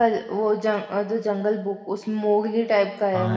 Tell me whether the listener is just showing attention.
No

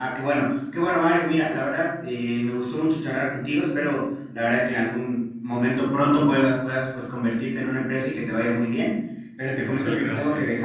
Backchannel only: Yes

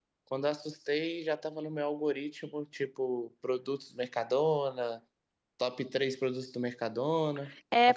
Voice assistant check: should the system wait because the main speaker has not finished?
No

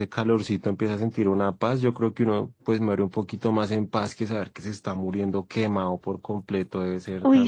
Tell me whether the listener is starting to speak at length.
Yes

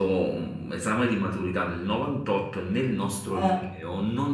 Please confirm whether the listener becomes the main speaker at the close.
No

